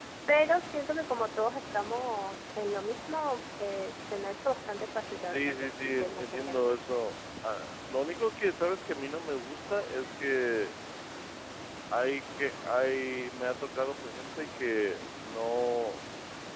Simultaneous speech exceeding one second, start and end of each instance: 5.2-6.8

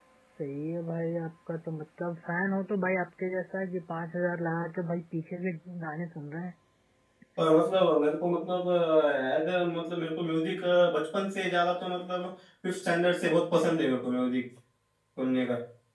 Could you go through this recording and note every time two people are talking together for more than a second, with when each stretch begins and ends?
none

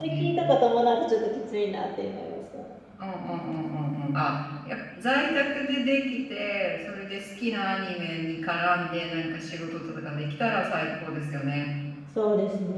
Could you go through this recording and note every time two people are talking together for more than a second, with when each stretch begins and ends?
none

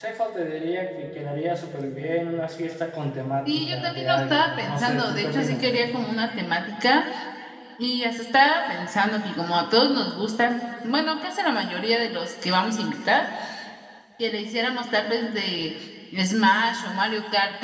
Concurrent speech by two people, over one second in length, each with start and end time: 3.5-5.7

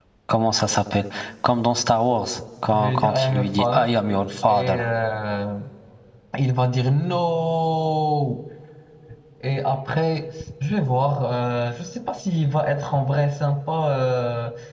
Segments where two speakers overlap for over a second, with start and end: 2.7-3.9

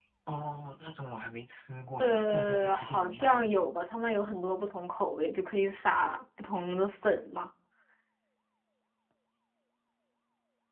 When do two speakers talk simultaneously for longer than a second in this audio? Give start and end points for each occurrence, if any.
2.0-3.6

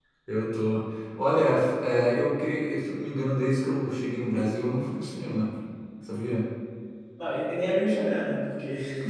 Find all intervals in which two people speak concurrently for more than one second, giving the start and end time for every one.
none

